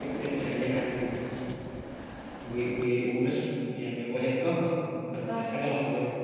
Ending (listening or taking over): listening